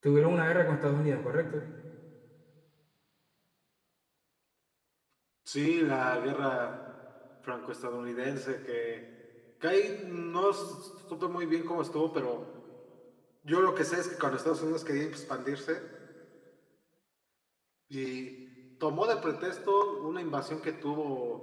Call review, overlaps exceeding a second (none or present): none